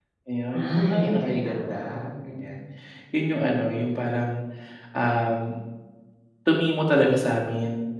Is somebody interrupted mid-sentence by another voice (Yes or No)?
Yes